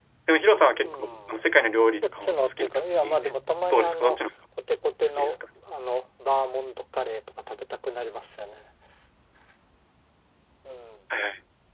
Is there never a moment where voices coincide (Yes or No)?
No